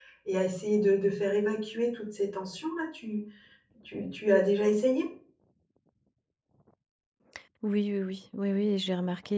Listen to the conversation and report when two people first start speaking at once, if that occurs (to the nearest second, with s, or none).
none